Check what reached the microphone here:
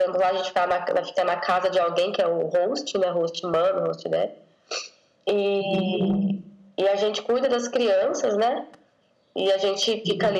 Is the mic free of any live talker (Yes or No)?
Yes